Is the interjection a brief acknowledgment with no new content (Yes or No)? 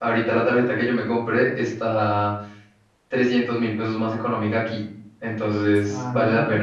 No